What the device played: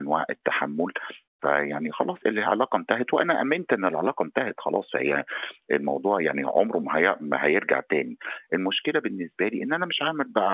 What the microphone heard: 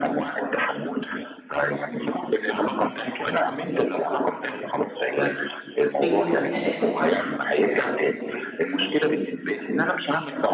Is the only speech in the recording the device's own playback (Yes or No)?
No